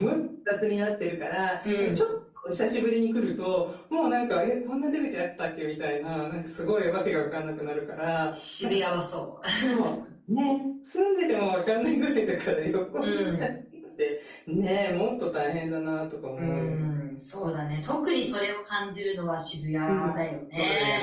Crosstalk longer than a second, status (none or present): none